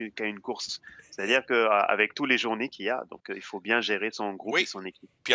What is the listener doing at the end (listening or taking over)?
taking over